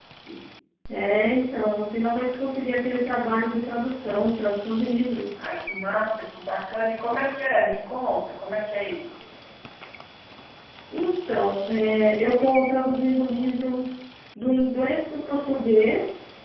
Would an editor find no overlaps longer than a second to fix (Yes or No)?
Yes